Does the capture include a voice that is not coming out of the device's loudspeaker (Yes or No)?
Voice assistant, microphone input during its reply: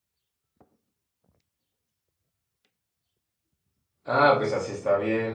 Yes